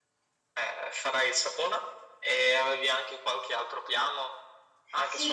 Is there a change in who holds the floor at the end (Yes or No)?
Yes